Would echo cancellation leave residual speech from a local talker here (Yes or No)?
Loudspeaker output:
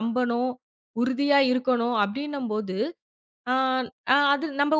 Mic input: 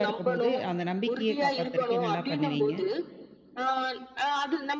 Yes